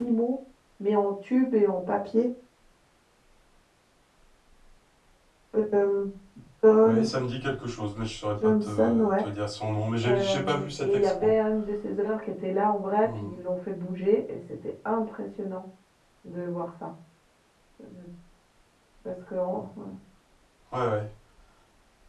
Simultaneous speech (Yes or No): Yes